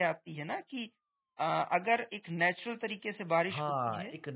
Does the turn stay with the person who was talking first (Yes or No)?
No